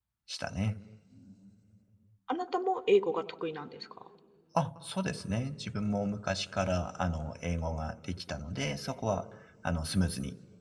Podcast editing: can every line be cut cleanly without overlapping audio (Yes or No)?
Yes